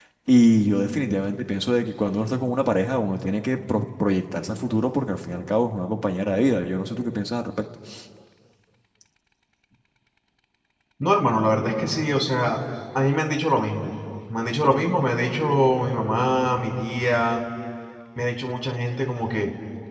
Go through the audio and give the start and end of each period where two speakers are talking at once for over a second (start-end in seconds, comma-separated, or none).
none